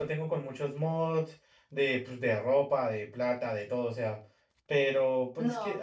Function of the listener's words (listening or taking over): taking over